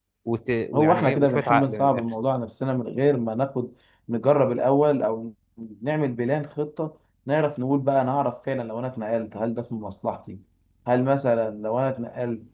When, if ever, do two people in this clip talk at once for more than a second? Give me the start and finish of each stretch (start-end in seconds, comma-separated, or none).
0.7-2.0